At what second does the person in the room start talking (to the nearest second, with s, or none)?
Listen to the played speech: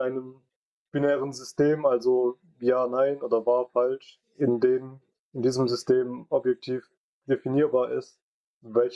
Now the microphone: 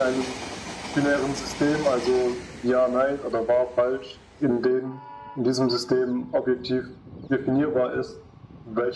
none